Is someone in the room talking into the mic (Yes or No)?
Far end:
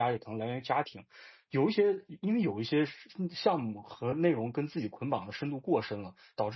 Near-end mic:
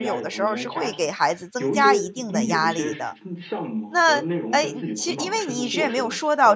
Yes